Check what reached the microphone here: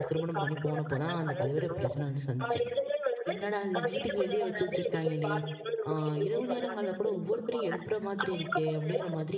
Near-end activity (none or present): present